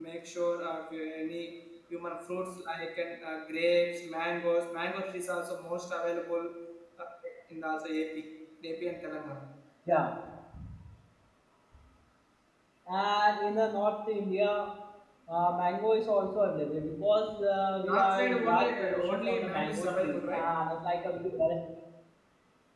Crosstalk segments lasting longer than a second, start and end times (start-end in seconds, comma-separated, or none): 17.8-20.5